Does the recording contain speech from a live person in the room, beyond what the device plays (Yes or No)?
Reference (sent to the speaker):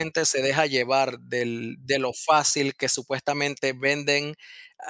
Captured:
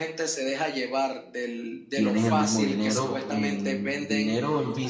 Yes